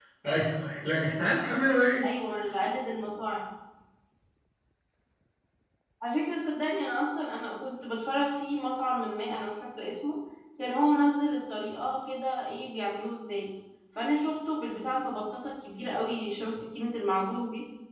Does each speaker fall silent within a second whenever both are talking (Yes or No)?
Yes